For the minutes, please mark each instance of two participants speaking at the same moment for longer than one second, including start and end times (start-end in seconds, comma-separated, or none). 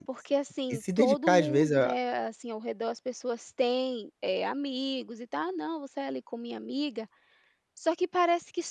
0.7-2.0